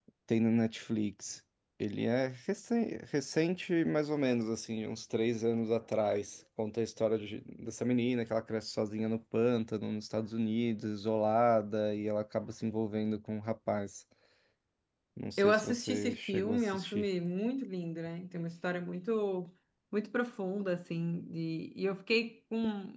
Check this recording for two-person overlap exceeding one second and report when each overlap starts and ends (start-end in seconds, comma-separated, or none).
15.4-17.0